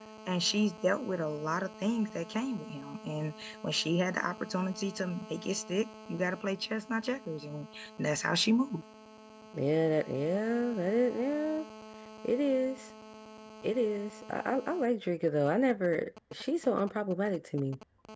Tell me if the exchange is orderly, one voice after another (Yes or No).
Yes